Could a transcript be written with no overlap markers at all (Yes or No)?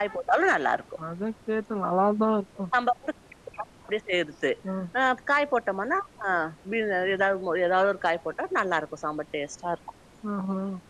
Yes